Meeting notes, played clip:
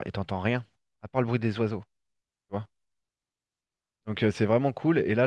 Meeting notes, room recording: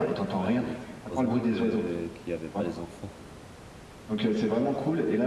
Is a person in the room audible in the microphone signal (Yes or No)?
Yes